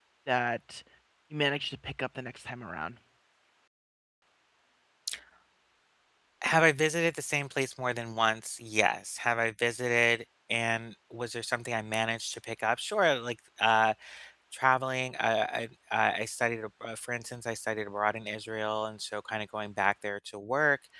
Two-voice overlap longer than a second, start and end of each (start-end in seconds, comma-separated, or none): none